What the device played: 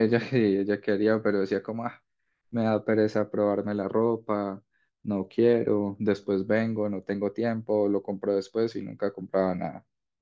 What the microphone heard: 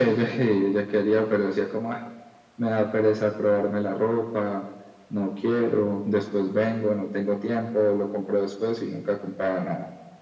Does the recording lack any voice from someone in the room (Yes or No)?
Yes